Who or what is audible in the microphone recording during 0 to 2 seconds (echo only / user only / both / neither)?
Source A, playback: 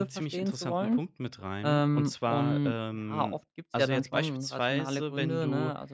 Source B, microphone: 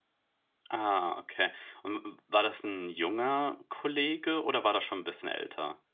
user only